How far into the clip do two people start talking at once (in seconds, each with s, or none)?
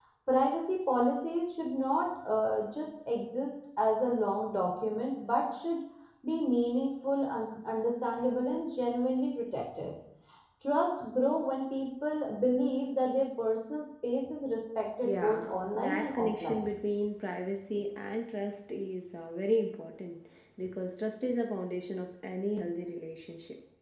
15.0 s